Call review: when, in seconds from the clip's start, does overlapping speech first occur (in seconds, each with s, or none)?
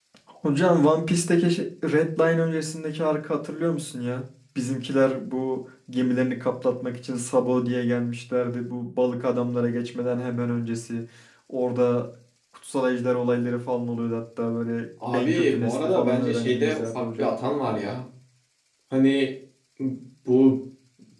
15.0 s